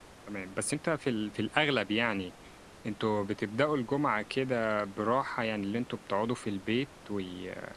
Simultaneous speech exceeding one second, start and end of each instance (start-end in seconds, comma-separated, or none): none